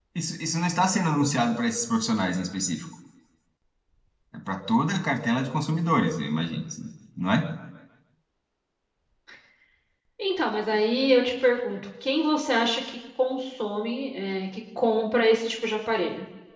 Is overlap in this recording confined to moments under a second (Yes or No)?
Yes